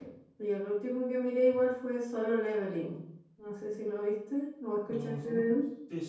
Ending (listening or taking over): taking over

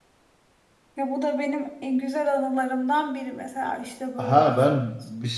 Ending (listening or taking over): taking over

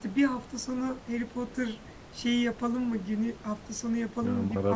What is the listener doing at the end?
listening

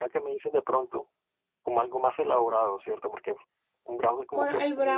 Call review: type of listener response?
taking over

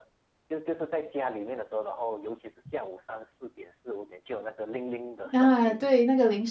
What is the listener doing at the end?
taking over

